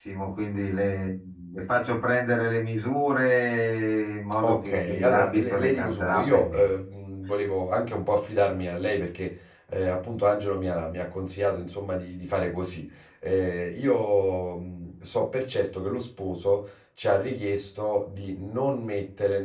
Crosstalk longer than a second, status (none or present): present